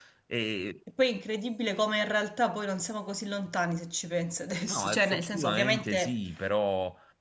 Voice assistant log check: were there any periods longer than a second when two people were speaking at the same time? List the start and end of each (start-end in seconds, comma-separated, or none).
4.7-6.2